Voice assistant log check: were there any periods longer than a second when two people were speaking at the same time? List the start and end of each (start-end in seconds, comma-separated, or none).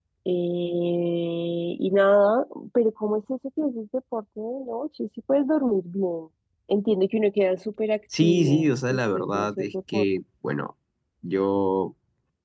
8.2-10.1